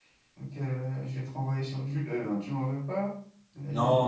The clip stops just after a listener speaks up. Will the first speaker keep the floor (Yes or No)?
No